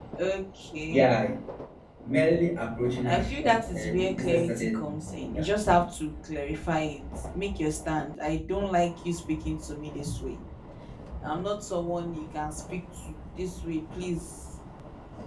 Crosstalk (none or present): present